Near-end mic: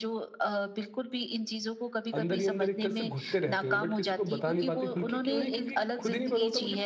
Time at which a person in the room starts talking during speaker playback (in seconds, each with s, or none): 2.1 s